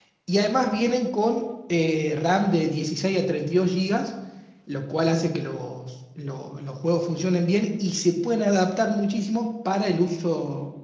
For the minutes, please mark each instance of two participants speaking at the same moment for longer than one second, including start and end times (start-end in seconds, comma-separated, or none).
none